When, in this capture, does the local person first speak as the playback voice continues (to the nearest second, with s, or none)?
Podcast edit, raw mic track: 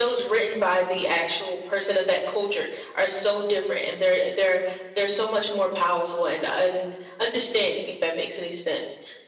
none